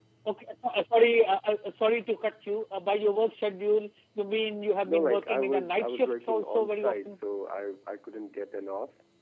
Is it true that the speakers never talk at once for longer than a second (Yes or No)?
No